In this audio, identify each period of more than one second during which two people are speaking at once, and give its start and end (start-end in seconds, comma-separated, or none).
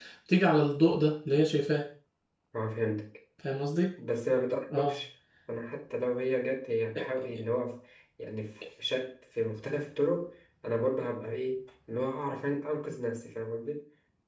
none